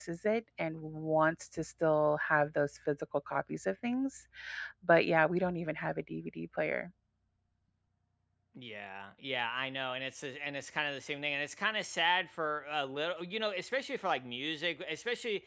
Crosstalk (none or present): none